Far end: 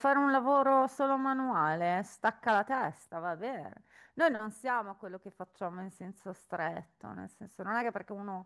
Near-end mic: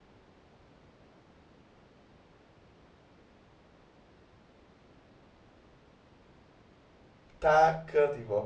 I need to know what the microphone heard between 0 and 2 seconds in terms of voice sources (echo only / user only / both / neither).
neither